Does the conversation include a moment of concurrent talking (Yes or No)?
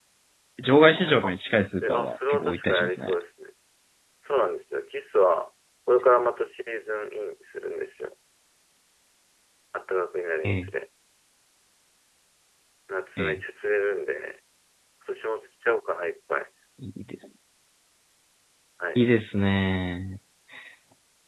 Yes